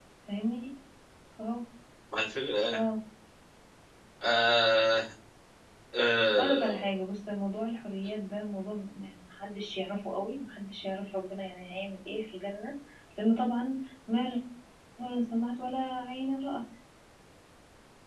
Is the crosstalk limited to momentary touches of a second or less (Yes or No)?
Yes